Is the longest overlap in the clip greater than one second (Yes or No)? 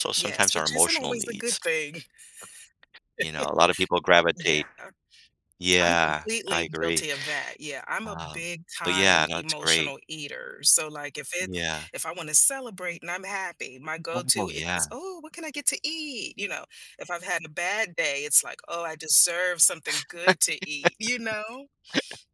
Yes